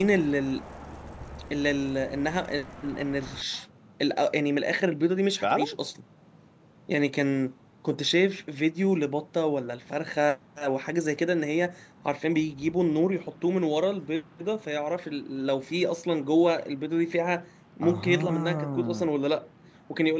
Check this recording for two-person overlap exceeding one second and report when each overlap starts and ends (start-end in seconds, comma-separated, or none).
17.8-19.1